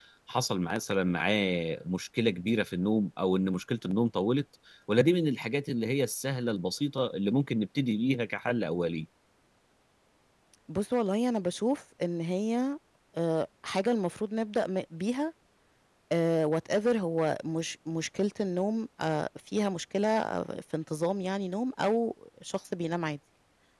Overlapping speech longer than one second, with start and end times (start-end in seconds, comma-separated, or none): none